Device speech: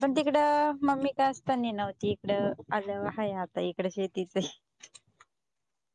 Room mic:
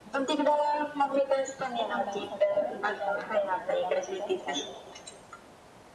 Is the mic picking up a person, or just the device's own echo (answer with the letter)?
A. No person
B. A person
B